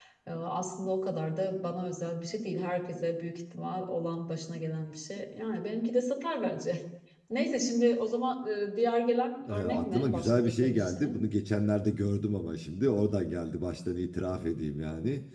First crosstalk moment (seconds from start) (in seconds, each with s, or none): 9.5 s